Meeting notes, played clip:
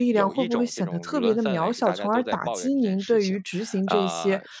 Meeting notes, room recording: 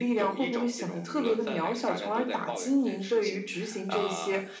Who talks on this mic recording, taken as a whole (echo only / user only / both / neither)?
echo only